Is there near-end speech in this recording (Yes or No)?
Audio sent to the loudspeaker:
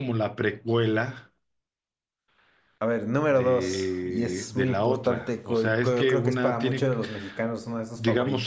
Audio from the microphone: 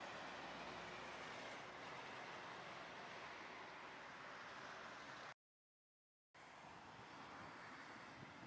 No